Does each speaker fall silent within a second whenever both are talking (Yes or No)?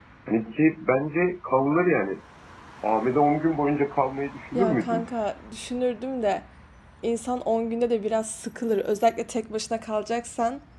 Yes